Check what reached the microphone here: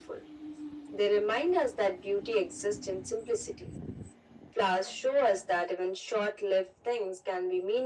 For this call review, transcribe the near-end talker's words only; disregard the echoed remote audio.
none

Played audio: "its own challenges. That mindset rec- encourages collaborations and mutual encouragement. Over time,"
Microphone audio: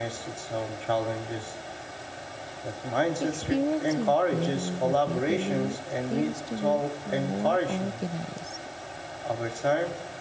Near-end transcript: Experiencing failure repeatedly seems to make more organized

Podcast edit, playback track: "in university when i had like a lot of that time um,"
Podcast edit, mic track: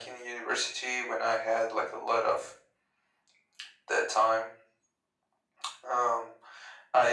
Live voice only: none

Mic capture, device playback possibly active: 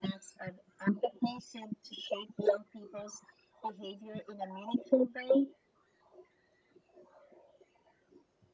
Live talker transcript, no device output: none

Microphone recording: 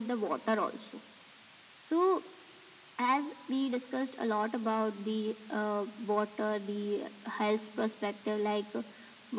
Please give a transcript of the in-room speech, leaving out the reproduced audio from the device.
none

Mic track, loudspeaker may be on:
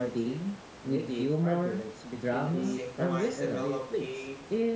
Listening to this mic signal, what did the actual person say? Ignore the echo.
Even the sink might develop a

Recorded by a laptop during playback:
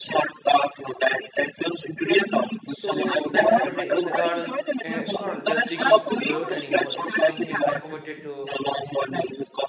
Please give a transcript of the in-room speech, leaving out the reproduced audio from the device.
So that Saturday in the garden, uh, it's not just digging dirt anymore. It's one thing I committed to.

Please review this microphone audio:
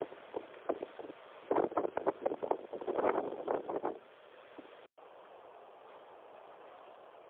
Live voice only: none

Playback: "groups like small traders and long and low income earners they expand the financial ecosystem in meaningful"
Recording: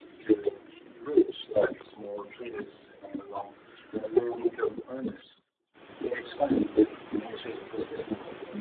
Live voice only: none

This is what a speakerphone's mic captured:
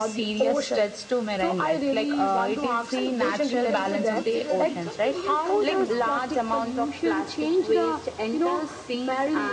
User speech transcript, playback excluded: and good you can say food security becomes a real concern now

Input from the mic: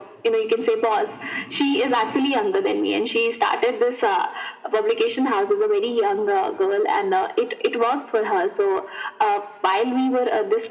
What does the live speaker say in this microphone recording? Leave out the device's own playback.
none

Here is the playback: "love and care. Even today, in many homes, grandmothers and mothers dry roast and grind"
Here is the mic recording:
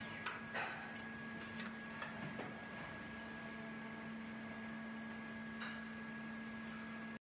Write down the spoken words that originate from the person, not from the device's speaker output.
none

